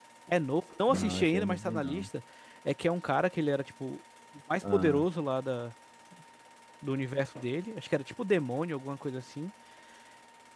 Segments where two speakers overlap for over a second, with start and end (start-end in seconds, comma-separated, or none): 0.9-2.1